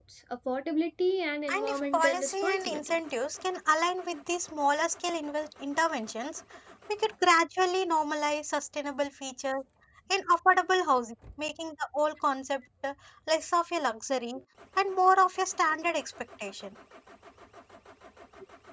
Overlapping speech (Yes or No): Yes